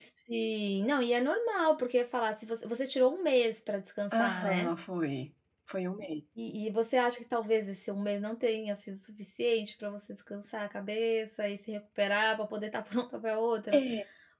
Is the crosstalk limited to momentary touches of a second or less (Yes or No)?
Yes